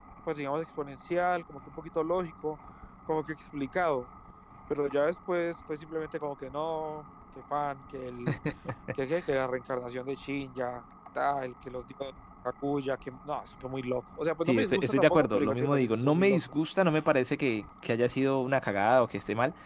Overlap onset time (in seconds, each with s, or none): 14.5 s